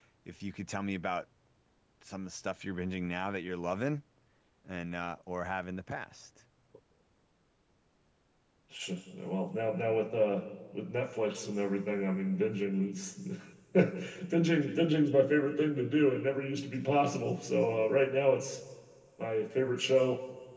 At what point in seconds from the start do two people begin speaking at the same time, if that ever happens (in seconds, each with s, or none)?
none